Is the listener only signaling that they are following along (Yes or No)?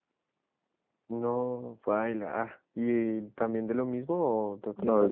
No